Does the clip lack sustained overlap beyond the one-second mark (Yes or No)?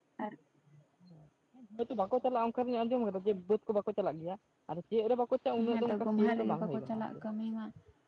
No